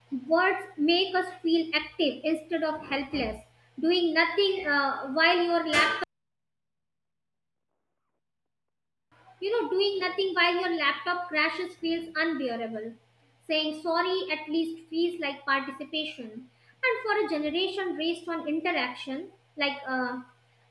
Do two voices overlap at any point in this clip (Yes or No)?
No